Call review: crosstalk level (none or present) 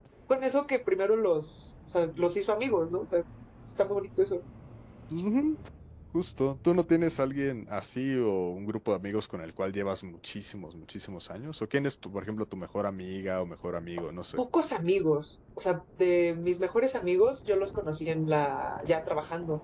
none